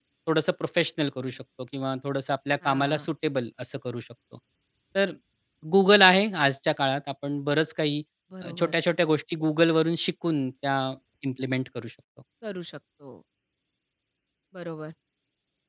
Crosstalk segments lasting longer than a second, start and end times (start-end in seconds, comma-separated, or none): none